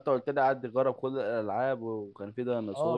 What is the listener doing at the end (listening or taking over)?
taking over